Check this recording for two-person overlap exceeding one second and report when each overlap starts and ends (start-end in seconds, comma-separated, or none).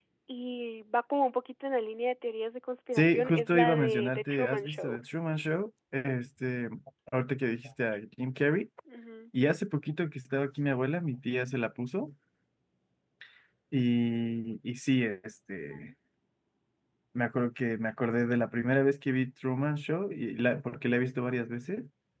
2.9-5.0